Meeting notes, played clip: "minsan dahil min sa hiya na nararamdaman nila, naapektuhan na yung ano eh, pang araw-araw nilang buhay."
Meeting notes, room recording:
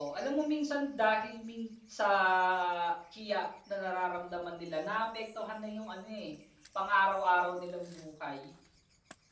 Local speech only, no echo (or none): none